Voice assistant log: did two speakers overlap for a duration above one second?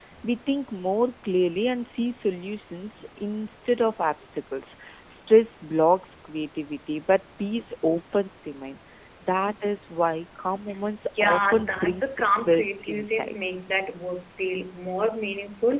Yes, from 11.1 s

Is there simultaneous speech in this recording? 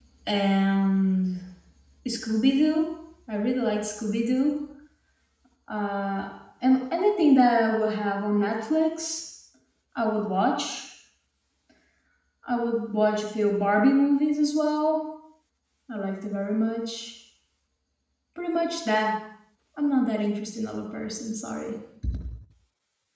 No

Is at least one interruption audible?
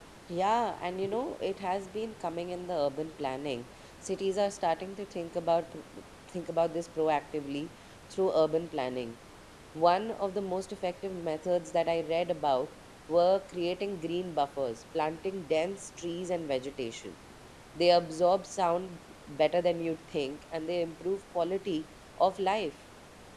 No

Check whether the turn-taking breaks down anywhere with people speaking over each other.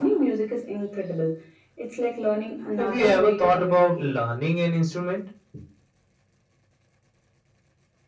Yes, from 2.8 s

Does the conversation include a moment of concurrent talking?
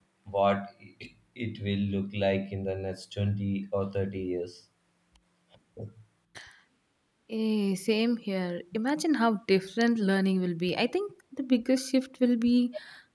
No

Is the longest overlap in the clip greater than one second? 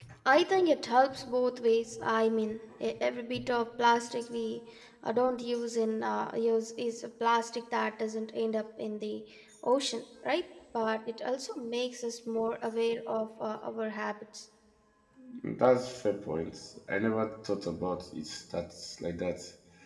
No

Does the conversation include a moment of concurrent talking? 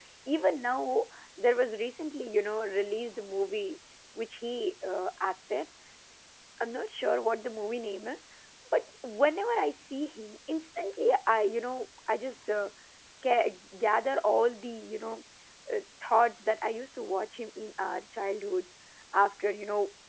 No

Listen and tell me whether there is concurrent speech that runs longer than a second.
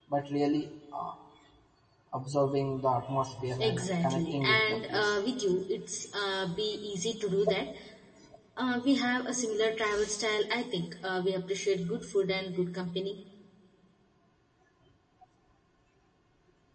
Yes, from 3.6 s

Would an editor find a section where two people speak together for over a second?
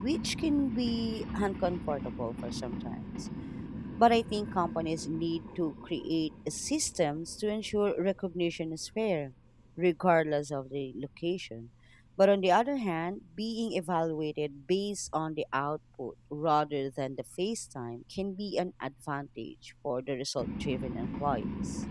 No

